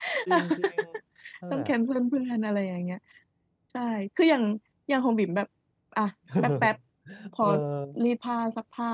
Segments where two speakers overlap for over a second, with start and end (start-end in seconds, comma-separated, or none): none